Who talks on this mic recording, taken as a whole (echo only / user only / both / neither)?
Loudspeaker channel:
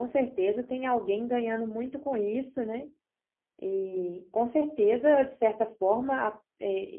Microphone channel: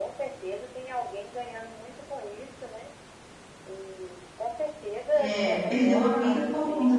both